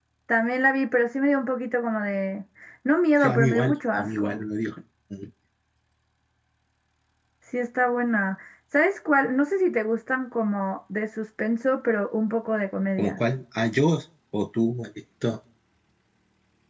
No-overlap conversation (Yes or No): No